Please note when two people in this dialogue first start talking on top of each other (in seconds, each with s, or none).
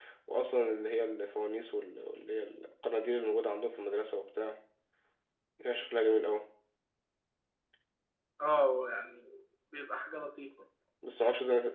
none